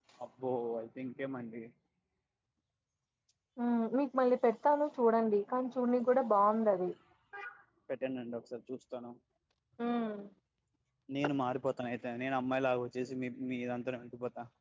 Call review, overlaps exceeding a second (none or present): none